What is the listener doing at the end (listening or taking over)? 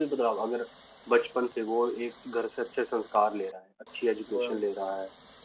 listening